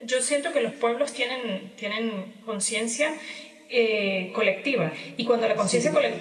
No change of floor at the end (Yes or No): Yes